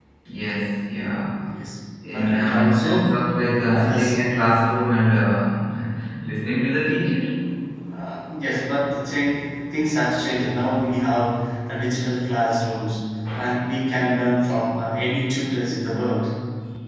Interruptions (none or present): present